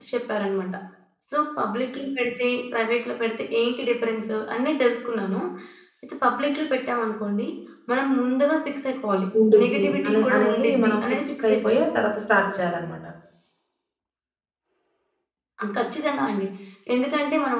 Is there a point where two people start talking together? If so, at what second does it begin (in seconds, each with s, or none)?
9.6 s